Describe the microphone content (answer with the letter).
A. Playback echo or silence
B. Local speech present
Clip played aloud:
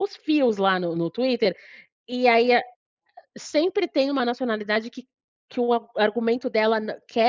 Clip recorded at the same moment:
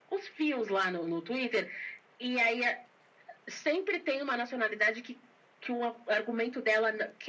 A